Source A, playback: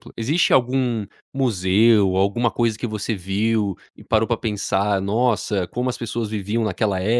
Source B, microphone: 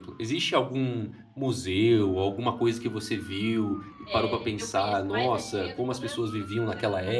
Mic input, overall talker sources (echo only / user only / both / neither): both